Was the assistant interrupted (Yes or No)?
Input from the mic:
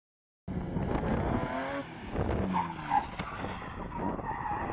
No